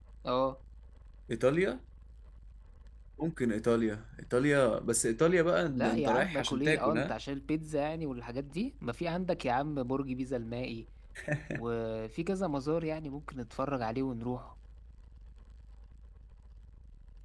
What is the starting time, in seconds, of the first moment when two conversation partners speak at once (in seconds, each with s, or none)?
5.7 s